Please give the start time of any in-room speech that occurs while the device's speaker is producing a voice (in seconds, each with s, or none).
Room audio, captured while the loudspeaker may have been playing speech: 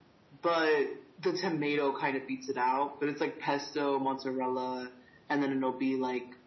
none